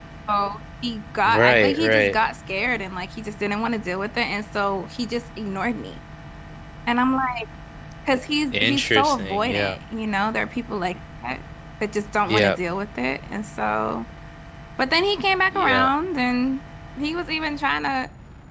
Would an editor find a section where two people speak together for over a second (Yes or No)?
Yes